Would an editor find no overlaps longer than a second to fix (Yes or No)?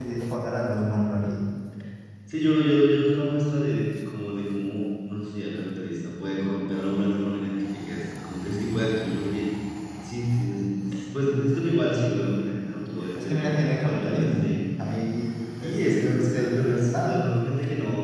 No